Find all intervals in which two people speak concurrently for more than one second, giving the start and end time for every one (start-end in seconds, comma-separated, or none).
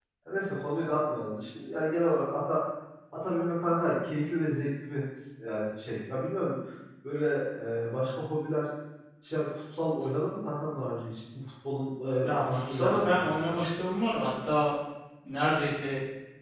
12.2-13.5